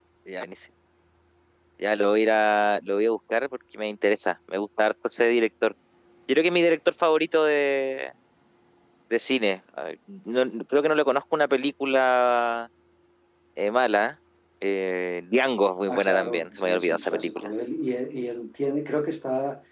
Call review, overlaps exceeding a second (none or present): present